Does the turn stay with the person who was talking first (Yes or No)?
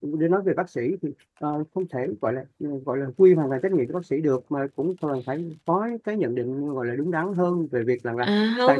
No